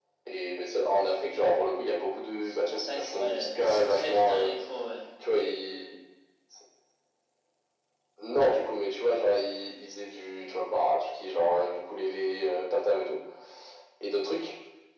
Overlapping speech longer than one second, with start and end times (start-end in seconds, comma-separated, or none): 2.8-4.5